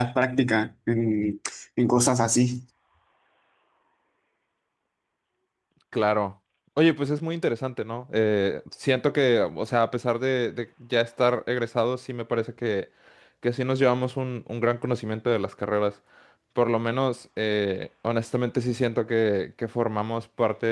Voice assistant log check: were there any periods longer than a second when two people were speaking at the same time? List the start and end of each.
none

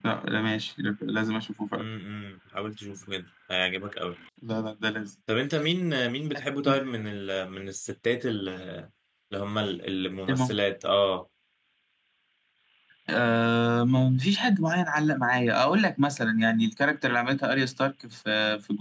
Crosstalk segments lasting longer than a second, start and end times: none

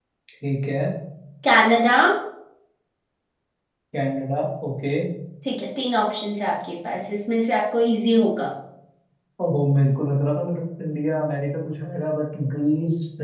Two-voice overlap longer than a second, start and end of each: none

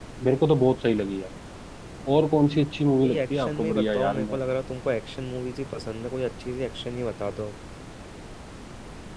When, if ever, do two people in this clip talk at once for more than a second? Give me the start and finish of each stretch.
3.0-4.4

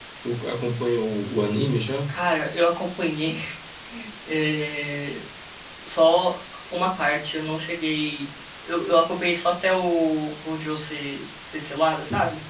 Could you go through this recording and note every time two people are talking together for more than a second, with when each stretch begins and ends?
none

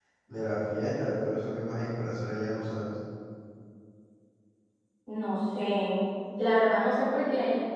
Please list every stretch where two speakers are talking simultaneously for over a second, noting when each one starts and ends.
none

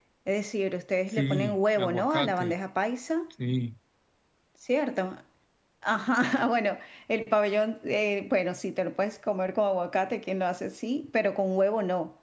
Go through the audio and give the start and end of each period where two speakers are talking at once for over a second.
1.1-2.5

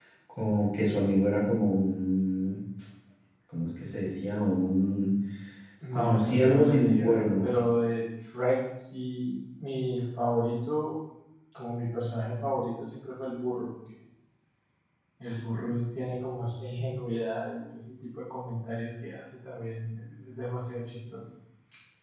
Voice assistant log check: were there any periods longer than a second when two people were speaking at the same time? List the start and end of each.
5.9-7.5

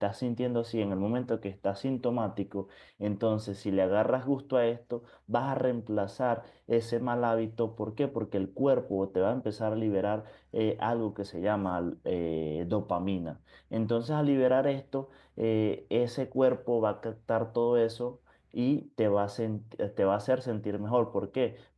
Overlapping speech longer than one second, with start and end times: none

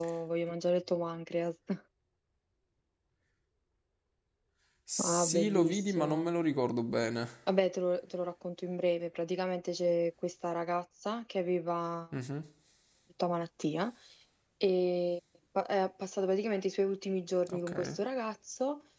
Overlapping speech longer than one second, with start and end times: 5.0-6.3

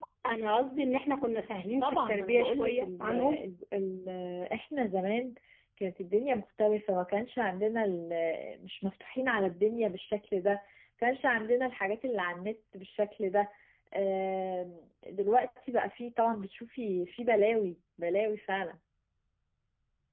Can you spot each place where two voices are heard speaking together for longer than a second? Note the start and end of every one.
1.8-3.4

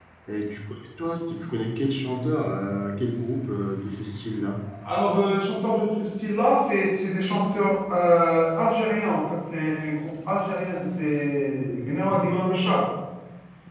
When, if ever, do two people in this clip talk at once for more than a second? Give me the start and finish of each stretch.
none

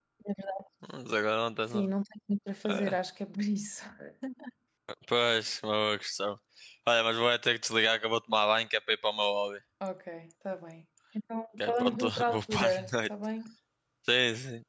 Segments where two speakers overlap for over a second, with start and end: 11.7-13.1

